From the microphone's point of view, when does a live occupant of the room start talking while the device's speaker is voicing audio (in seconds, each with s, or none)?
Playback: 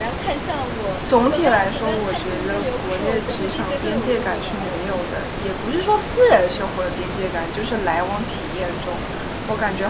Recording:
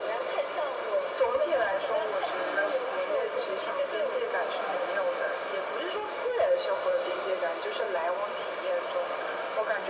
none